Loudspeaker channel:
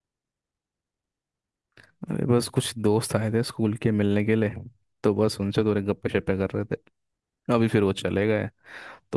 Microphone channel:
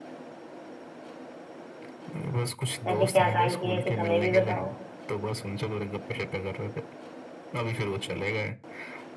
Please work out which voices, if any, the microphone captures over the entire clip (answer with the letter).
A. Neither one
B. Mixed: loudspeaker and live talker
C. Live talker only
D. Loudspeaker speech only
B